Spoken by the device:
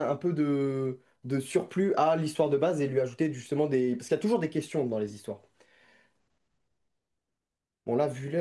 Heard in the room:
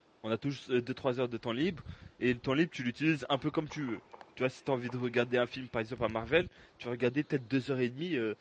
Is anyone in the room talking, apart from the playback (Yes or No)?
Yes